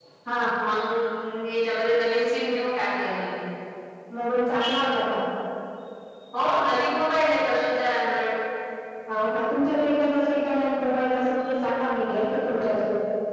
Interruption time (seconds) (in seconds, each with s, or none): none